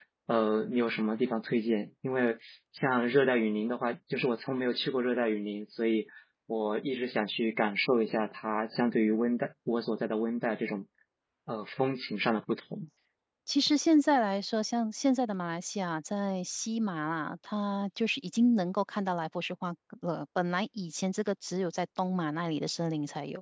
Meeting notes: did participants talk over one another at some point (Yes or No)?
No